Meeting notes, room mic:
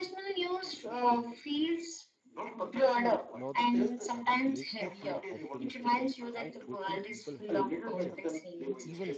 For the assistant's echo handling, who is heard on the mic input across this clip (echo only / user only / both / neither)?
both